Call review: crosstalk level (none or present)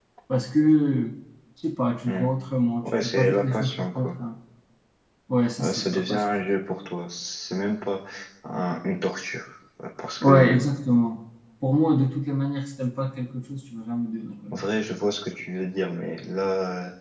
present